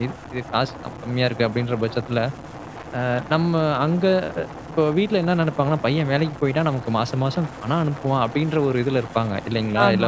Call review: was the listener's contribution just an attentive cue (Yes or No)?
No